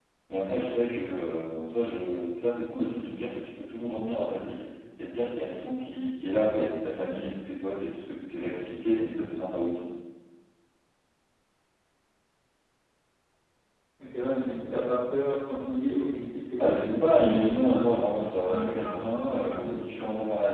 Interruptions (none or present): present